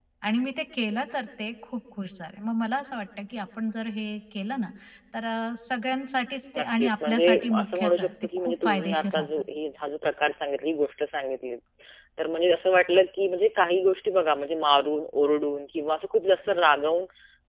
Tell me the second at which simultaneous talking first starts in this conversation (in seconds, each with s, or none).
6.5 s